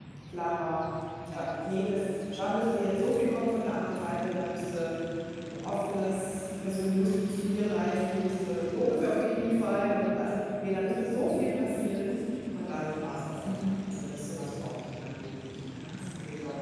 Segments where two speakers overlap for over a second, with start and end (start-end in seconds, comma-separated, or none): 1.3-2.6